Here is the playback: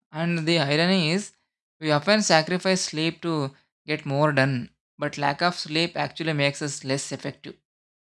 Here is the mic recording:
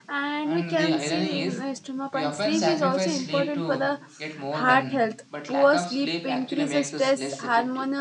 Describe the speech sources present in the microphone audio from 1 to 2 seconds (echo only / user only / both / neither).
both